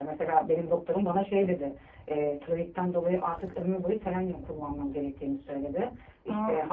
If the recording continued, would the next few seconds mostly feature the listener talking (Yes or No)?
No